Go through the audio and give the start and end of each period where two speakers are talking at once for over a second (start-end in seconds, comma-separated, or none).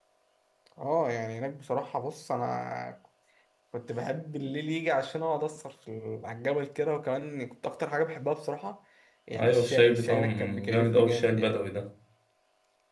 9.4-11.6